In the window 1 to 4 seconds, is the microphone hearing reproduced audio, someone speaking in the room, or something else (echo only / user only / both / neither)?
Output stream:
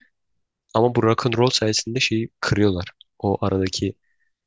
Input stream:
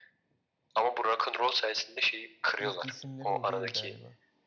both